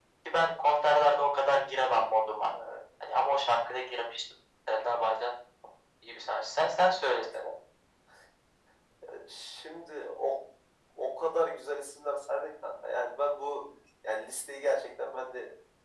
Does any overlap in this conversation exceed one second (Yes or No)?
No